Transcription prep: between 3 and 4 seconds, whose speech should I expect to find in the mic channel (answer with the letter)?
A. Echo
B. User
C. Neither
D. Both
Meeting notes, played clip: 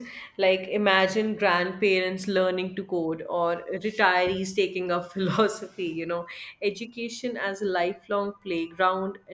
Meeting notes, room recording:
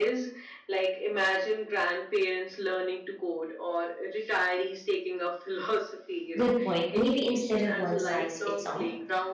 A